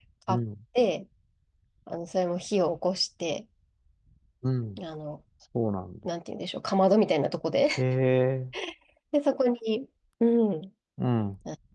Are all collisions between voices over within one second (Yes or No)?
Yes